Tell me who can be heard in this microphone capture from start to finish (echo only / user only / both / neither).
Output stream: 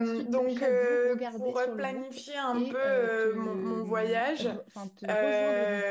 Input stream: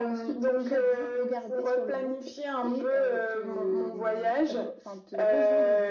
echo only